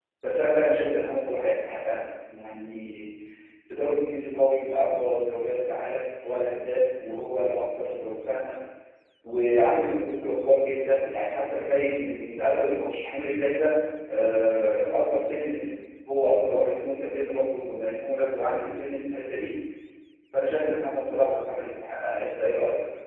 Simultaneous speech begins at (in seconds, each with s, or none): none